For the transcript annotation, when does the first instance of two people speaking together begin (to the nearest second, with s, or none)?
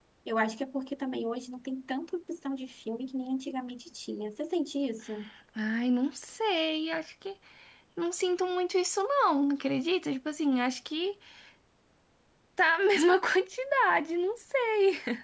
none